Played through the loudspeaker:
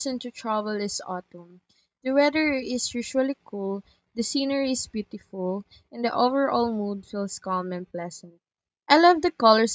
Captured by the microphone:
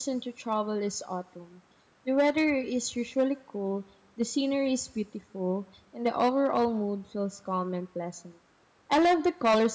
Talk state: echo only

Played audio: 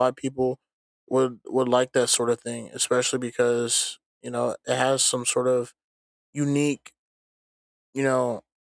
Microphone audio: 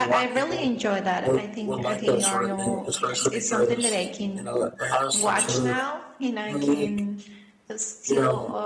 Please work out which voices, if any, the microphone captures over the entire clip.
both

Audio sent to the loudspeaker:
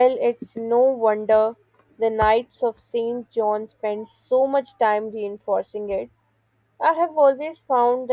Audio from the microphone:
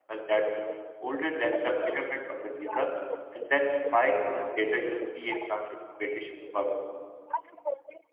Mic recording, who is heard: both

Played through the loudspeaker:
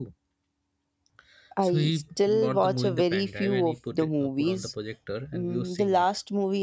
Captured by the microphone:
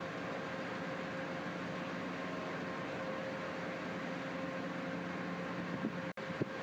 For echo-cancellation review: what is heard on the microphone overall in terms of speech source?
neither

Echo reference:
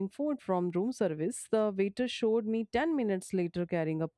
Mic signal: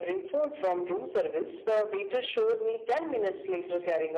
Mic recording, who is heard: echo only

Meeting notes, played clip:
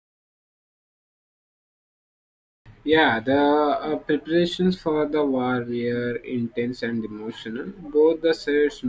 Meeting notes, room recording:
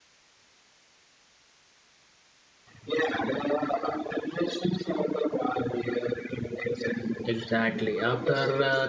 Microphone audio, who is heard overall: both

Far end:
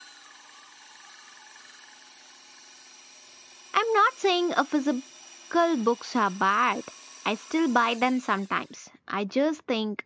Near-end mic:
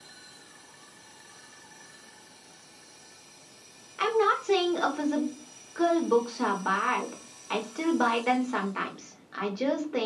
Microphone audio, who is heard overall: echo only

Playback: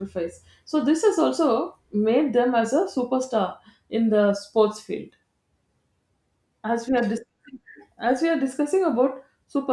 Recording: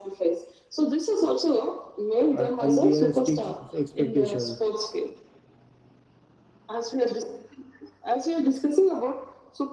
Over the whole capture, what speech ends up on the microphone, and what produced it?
both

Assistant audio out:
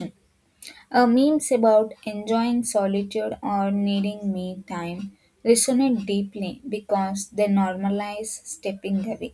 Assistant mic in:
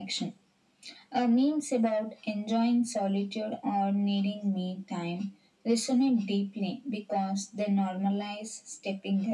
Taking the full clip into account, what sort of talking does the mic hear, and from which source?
echo only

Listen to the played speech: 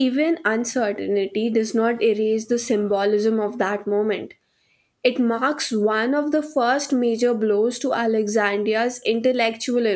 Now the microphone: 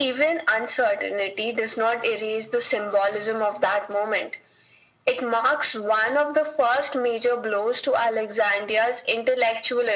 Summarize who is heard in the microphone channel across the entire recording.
echo only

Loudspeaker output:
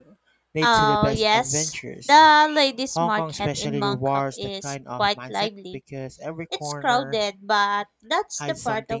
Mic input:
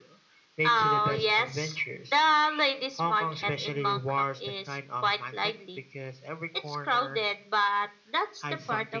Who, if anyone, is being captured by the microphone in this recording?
echo only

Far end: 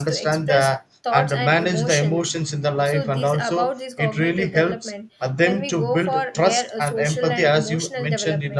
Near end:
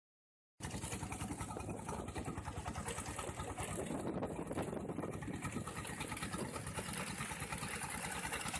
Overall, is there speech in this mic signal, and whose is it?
neither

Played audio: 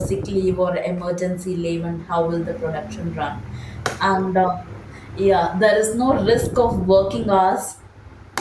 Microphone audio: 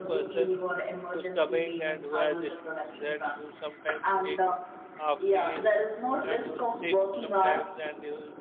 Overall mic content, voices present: both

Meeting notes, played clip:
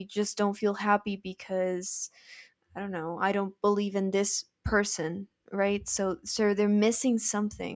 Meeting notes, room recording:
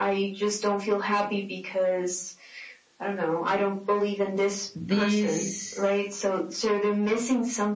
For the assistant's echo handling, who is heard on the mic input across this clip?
both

